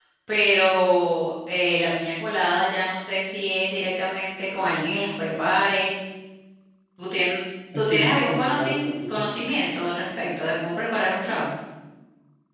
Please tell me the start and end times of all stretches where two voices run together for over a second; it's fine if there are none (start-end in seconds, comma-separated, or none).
7.8-9.3